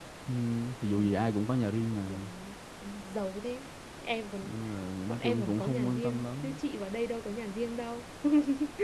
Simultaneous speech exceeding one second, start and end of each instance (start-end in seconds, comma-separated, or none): 5.1-6.6